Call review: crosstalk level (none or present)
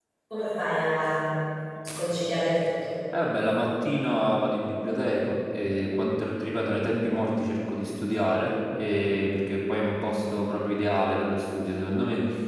none